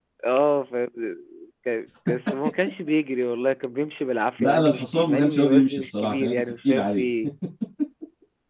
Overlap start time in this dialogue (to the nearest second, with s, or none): 4 s